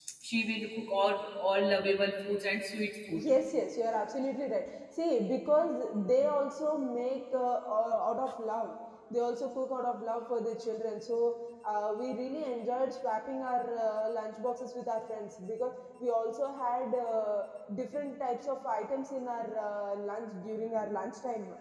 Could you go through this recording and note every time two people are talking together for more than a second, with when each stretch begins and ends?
none

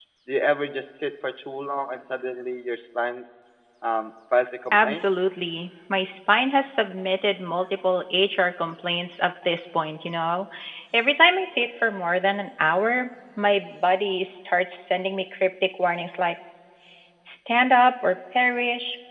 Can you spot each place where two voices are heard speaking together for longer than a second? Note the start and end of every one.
none

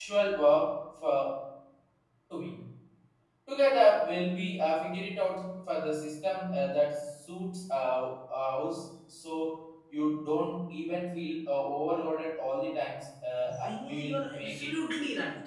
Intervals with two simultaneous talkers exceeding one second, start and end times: 13.5-14.7

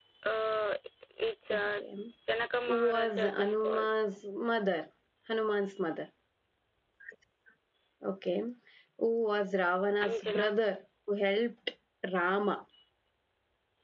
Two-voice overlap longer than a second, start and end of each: 2.7-3.9

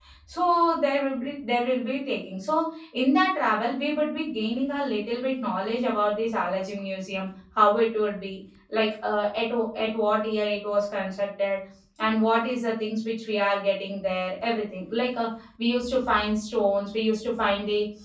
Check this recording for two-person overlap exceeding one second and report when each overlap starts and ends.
none

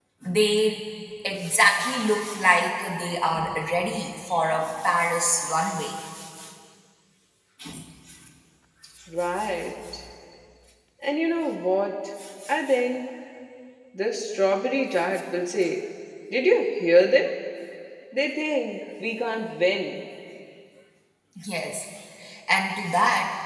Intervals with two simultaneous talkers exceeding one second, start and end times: none

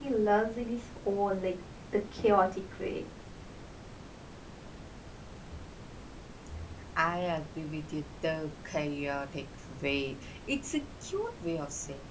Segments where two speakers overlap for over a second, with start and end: none

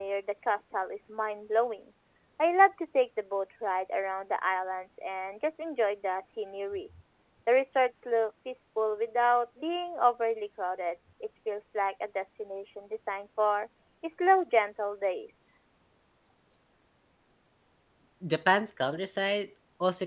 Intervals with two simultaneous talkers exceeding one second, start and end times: none

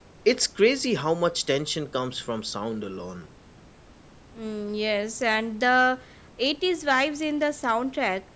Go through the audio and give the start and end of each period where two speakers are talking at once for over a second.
none

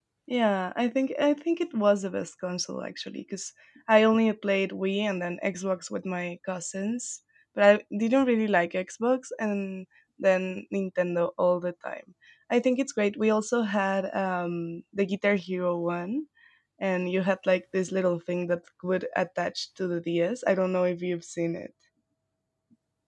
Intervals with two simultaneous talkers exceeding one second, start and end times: none

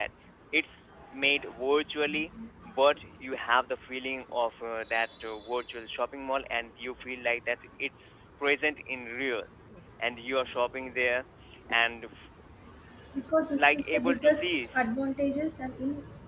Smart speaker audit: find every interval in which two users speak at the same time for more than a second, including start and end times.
13.6-14.9

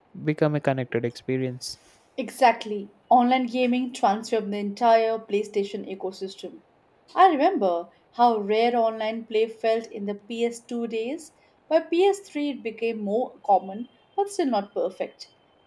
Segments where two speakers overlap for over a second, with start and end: none

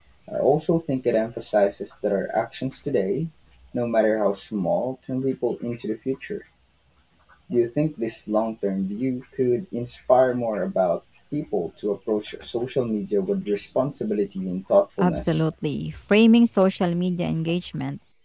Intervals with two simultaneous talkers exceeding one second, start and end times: none

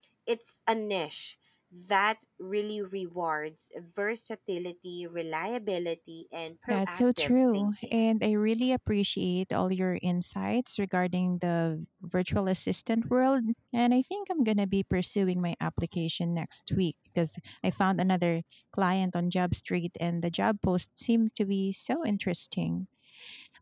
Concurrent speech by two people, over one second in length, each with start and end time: 6.7-7.9

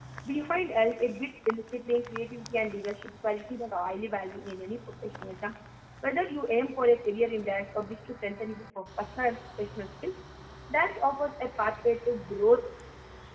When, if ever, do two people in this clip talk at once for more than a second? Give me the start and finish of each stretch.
none

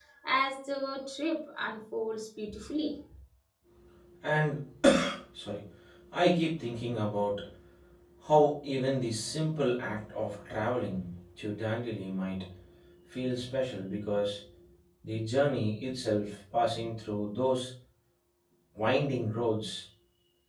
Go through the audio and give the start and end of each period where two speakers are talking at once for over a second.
none

